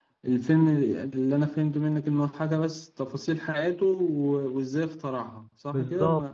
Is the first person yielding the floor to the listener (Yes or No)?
Yes